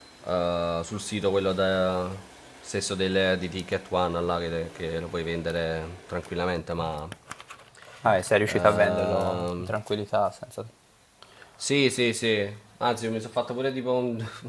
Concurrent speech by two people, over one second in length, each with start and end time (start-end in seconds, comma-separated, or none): 8.5-9.7